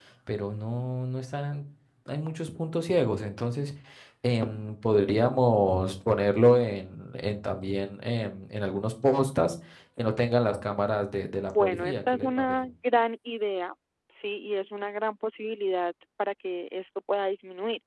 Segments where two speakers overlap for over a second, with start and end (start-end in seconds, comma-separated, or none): 11.4-12.6